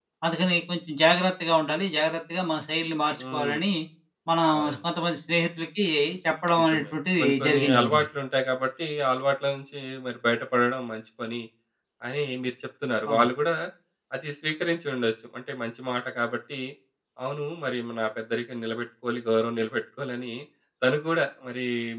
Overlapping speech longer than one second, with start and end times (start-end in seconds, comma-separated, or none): 6.6-8.0